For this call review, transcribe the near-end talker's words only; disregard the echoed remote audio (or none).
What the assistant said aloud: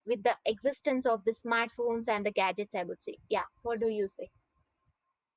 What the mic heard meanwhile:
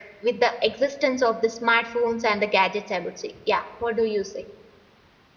none